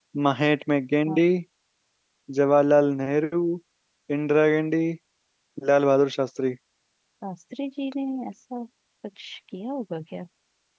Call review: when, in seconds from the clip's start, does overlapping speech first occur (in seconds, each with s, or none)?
none